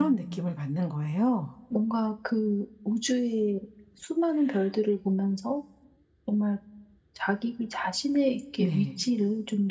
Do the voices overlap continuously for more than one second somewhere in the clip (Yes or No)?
No